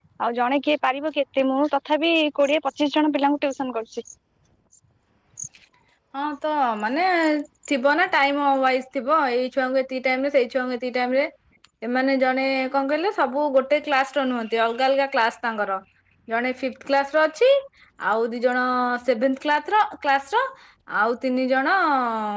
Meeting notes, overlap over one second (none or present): none